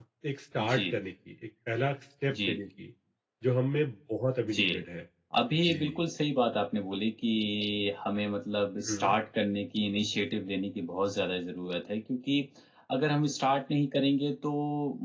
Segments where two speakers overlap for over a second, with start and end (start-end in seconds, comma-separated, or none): none